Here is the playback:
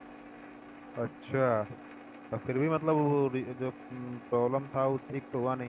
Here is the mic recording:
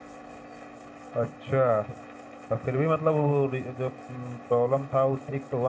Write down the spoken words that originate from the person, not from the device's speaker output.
none

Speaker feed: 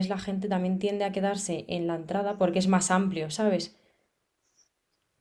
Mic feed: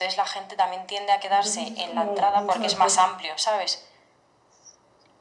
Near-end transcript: Entonces es como mucho mejor.

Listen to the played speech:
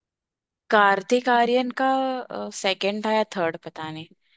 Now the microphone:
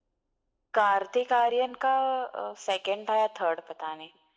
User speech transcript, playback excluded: none

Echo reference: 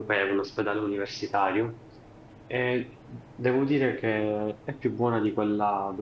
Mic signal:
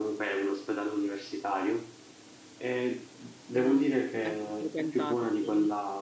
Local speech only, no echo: Mm. Ecco, frequentati, quindi.

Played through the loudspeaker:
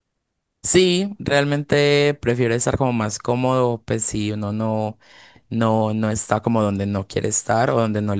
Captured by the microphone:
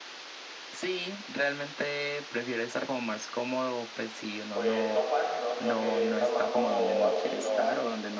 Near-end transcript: pues, no pase, ¿no? Sino que estás más cómodo así, ¿no?

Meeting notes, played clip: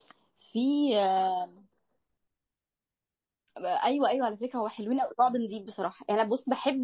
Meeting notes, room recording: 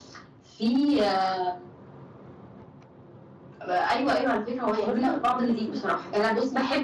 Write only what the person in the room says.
واصلا انت بتحسي انك

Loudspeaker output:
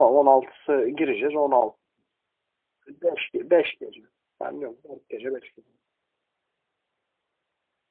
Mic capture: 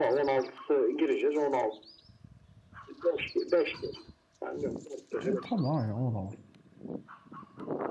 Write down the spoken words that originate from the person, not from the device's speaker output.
E tabii aynen o da var.

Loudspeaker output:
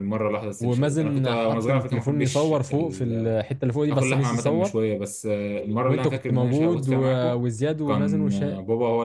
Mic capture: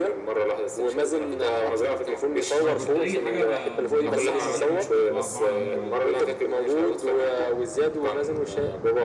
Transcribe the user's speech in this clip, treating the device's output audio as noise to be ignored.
هو انا كنت اي حاجه ب... بتعملوها لو انا موجود كنت بع- بقعد اعملها معاكم فاهم

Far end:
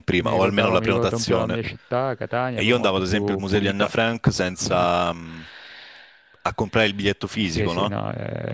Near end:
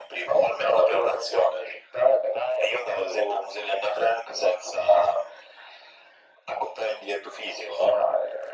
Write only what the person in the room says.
none

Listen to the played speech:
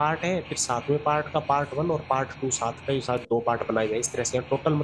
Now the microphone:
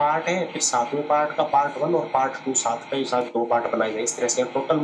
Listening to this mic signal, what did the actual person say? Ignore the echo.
none

